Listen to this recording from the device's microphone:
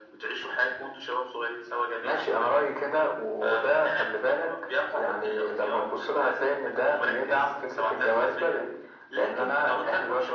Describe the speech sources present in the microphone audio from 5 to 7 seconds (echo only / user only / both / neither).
echo only